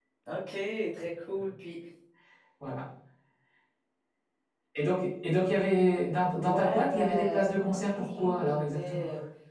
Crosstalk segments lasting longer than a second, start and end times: 6.3-9.0

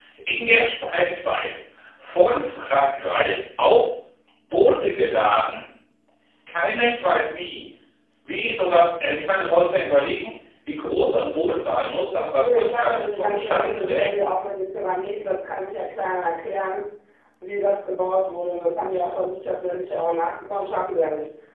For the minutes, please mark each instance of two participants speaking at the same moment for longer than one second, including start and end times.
12.4-14.2

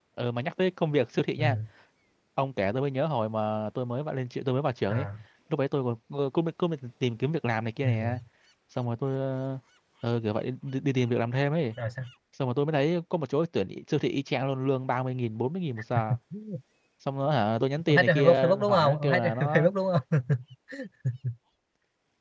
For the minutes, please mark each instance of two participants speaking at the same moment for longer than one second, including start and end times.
17.9-19.7

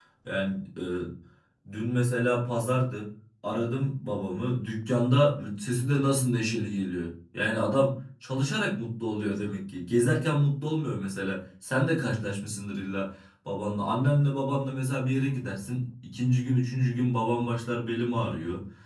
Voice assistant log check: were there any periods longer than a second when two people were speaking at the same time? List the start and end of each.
none

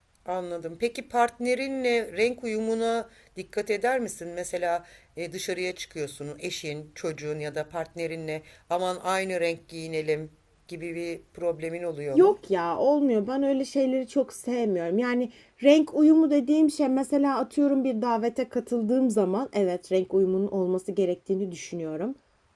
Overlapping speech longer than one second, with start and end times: none

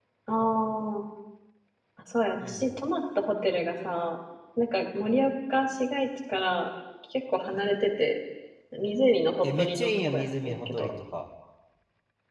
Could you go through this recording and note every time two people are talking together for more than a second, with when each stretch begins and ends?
9.4-10.9

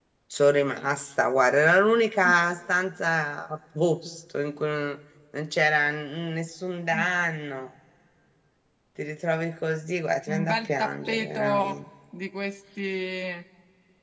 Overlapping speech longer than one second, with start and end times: 10.3-11.5

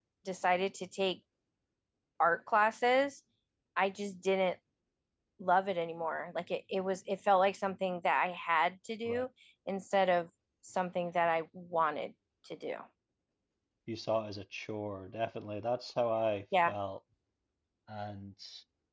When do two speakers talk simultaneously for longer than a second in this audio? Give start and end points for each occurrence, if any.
none

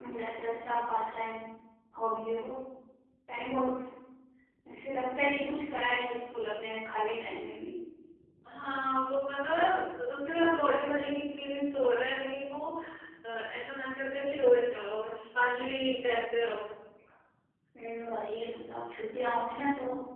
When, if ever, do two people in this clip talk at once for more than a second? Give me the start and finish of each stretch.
none

